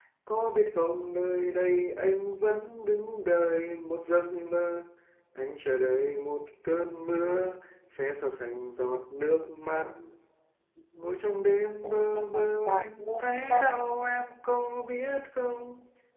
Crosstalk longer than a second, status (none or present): present